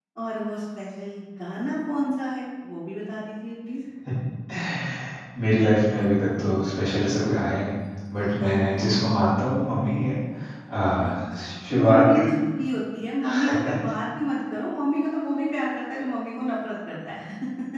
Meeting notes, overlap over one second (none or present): none